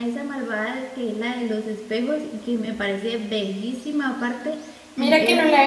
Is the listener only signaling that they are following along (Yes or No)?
No